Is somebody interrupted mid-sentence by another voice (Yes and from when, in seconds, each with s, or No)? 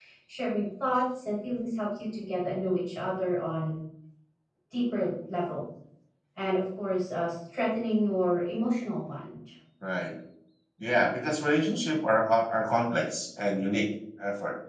No